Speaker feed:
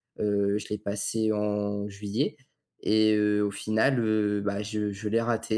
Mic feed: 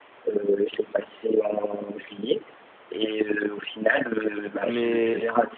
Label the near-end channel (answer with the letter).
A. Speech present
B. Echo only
A